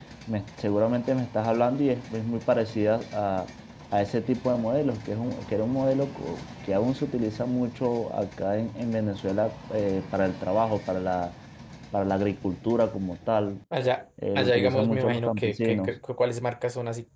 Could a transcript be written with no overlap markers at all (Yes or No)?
No